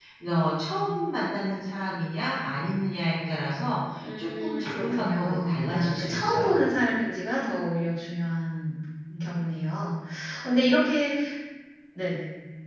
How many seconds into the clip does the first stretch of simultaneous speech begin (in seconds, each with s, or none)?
4.0 s